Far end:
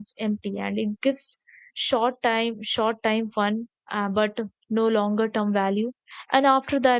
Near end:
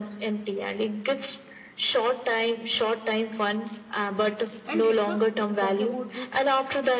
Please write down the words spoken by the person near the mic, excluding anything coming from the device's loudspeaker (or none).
And let's not talk about this